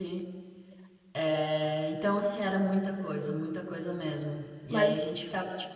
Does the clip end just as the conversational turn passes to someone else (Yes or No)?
No